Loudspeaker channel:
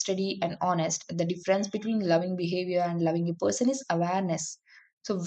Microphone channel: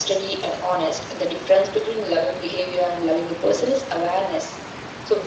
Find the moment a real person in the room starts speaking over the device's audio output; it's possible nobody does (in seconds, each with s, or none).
none